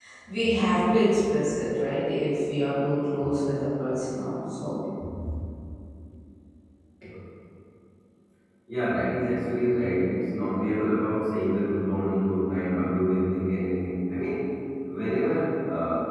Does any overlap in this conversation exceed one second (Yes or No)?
No